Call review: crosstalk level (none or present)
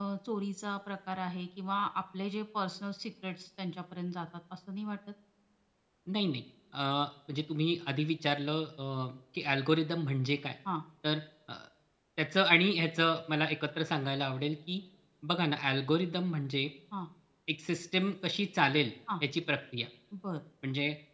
none